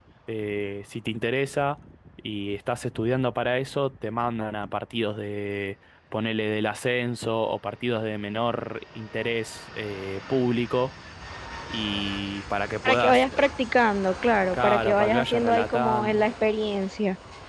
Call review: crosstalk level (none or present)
present